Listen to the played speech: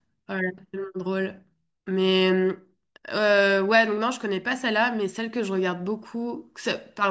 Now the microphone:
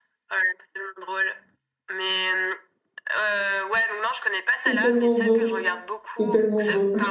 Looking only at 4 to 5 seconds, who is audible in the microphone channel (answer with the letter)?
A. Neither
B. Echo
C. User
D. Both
D